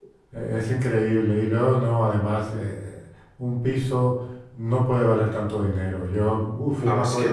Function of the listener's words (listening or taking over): taking over